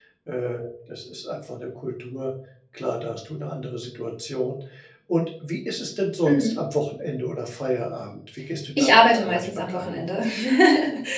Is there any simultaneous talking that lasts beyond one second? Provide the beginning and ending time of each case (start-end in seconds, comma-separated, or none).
8.8-10.0